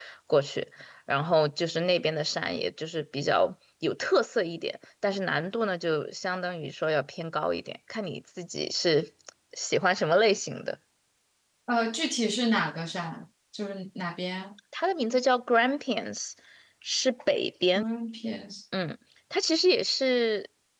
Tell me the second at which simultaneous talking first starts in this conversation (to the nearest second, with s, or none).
none